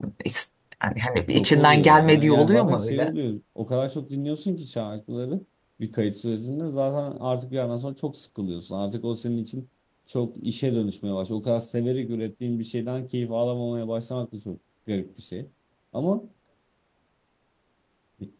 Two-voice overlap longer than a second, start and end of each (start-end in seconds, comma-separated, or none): 1.3-3.1